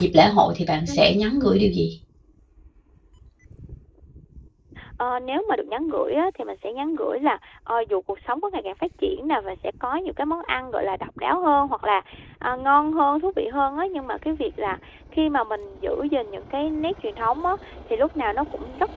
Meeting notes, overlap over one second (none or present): none